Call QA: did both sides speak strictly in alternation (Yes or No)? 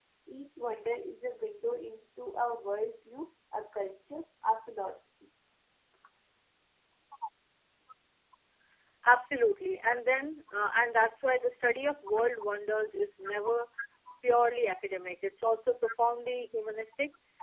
Yes